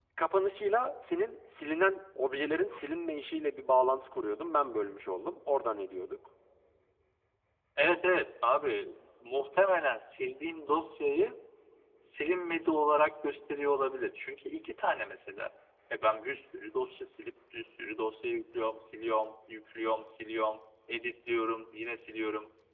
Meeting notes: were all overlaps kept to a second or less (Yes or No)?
Yes